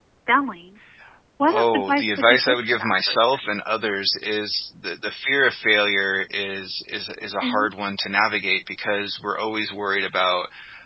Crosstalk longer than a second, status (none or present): present